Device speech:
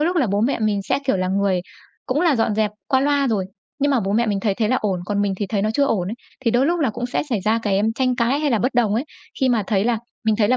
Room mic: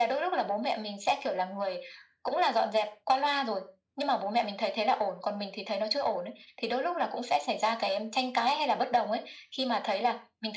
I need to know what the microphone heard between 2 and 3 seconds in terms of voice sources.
echo only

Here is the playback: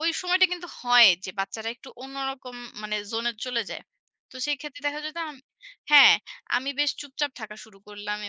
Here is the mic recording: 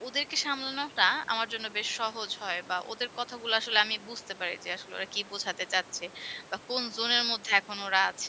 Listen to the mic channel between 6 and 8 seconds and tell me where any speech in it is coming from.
user only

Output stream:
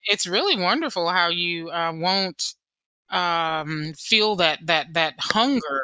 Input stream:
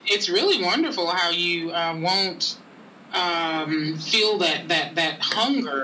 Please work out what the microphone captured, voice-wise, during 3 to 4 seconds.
echo only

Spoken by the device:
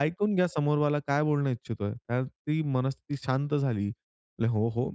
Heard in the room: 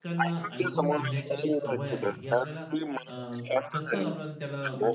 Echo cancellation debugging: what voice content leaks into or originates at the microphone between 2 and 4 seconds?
both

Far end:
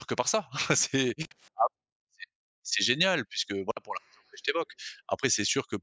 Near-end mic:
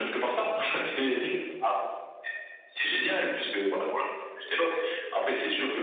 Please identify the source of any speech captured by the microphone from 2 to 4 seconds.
echo only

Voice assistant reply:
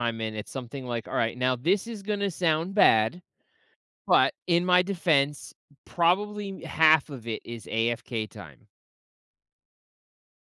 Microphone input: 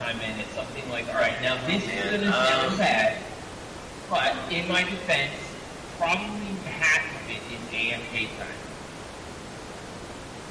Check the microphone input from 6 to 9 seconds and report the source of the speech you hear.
echo only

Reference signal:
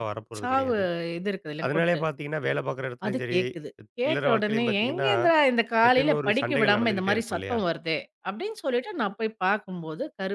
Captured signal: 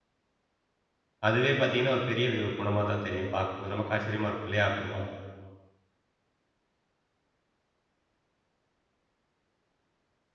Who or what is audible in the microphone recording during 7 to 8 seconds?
neither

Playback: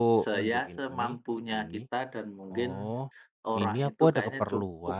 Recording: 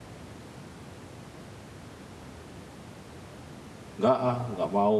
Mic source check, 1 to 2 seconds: neither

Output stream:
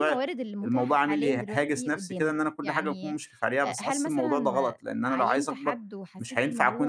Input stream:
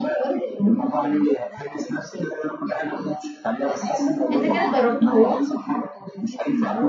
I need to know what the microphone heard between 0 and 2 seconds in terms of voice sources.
echo only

